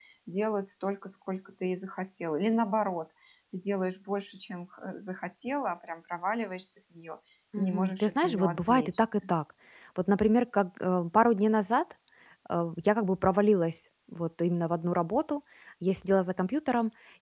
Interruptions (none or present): present